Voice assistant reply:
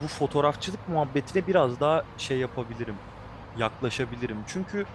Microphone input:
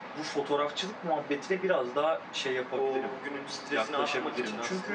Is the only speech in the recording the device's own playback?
No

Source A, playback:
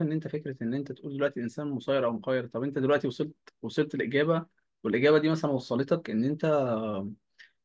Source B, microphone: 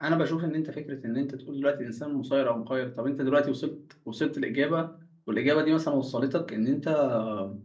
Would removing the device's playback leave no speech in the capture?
Yes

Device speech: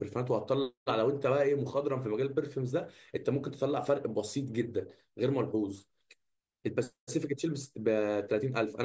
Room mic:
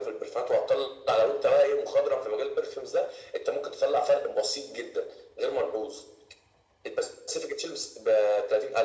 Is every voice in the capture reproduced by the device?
Yes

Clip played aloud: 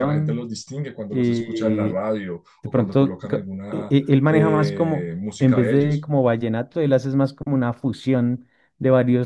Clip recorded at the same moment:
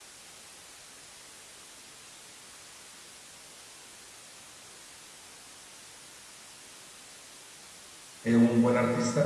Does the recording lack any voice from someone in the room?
No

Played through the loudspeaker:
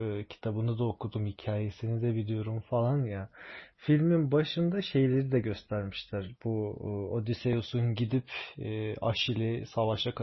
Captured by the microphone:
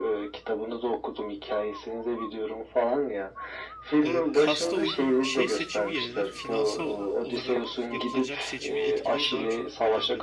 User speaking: Yes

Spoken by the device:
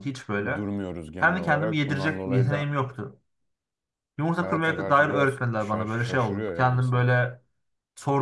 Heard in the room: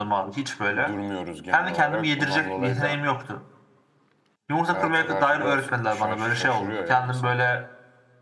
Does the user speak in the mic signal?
No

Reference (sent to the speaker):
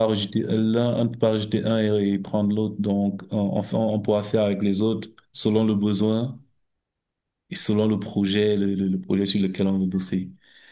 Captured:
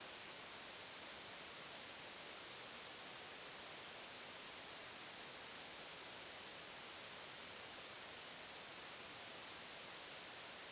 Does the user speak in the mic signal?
No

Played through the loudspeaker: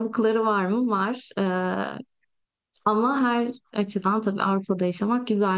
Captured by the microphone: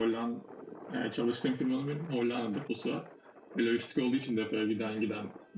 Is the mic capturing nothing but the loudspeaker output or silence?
No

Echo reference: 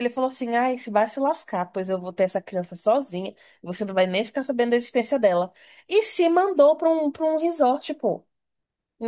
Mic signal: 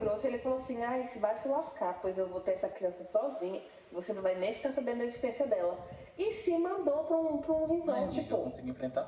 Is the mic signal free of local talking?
No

